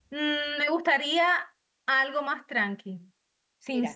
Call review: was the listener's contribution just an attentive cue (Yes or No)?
Yes